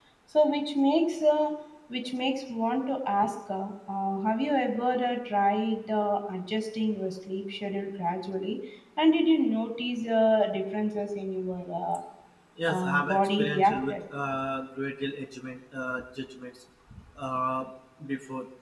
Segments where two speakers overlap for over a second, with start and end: 12.7-14.0

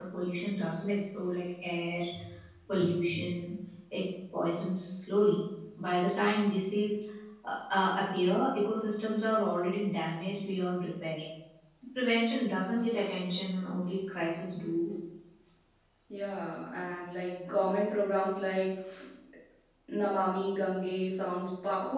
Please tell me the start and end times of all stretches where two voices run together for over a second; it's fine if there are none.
none

